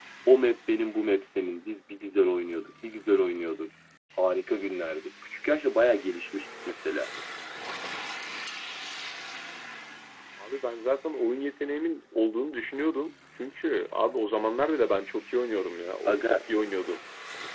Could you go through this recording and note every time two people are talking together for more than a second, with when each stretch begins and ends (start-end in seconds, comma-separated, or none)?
none